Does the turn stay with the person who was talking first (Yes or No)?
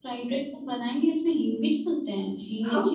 No